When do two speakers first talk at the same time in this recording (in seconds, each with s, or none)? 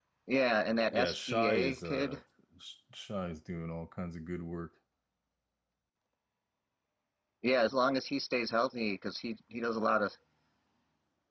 0.9 s